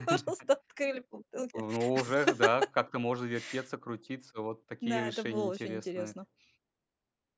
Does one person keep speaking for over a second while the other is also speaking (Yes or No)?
Yes